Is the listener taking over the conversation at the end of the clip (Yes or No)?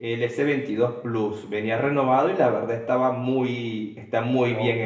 Yes